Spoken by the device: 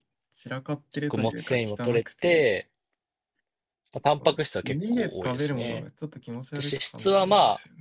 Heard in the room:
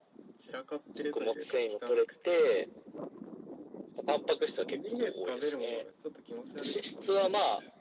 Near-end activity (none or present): none